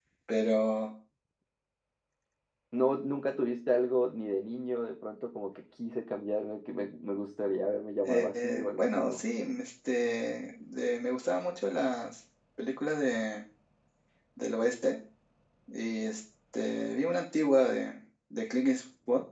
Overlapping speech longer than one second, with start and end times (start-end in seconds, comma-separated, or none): 8.0-9.2